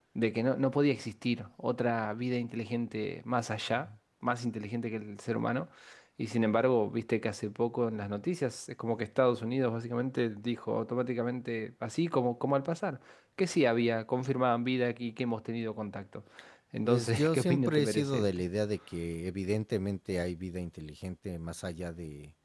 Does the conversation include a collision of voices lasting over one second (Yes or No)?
Yes